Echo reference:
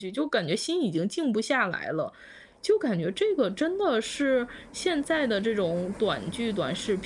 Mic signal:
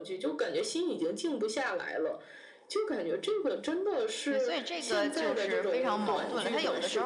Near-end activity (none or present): present